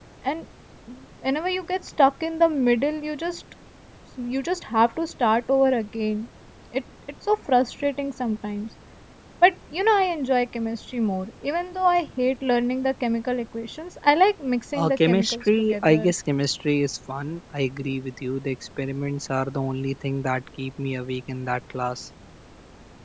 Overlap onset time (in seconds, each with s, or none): 14.7 s